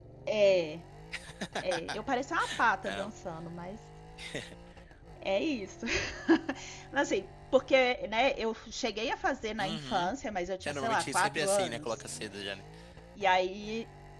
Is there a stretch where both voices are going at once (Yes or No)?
Yes